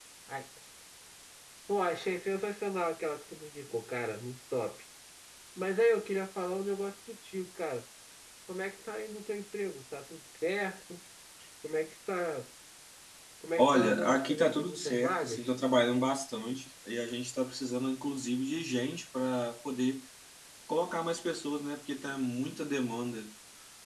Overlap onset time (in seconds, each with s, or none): 13.6 s